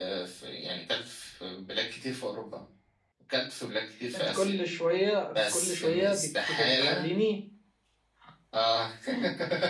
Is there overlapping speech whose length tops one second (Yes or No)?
Yes